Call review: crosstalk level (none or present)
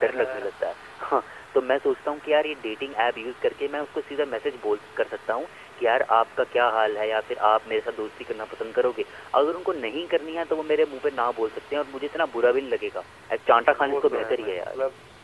present